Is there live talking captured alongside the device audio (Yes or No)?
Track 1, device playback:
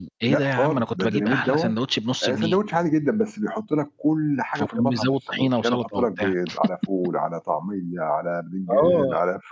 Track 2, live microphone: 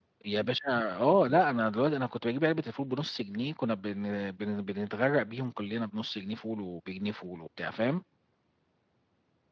Yes